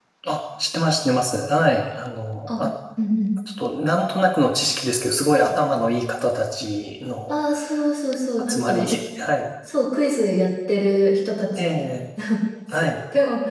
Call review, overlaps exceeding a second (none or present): none